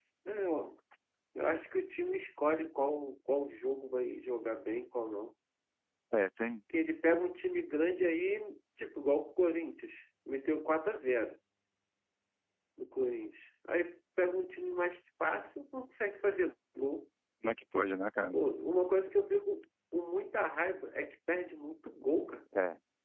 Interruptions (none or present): none